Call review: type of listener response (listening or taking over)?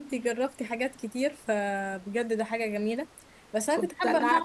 listening